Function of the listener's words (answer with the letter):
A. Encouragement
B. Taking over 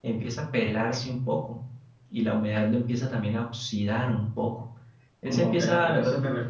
B